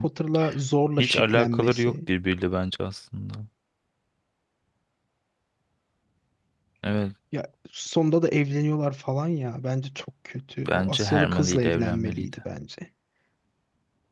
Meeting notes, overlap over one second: present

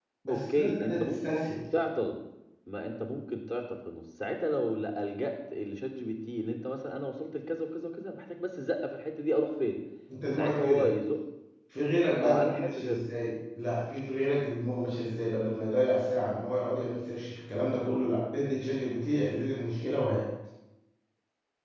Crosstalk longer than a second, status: present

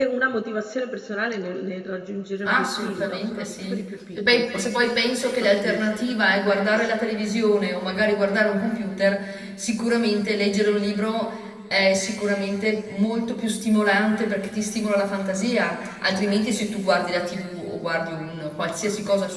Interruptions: present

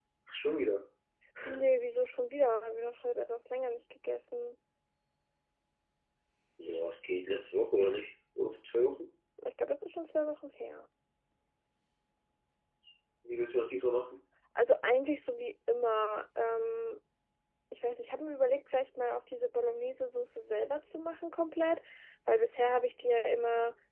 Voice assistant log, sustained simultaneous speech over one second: none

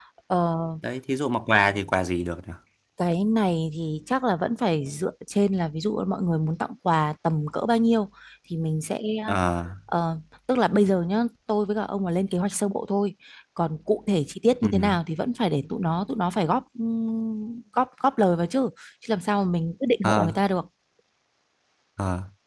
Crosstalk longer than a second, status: none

